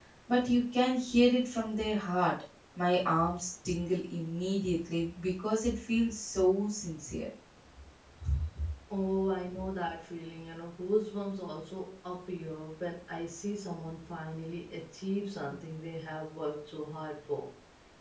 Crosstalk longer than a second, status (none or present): none